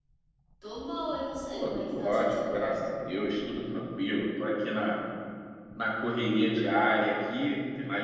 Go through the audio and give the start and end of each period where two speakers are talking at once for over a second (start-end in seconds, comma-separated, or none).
1.5-2.8